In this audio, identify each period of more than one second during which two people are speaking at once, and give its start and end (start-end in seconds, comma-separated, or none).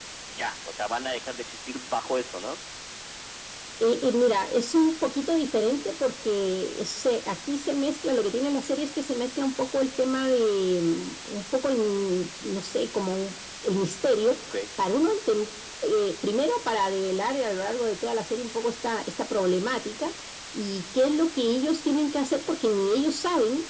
none